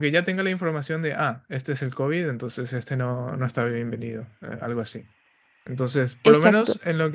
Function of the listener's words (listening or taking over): listening